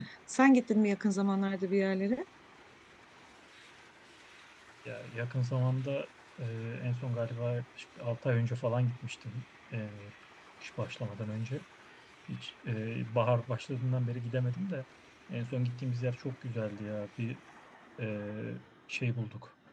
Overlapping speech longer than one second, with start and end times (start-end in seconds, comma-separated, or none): none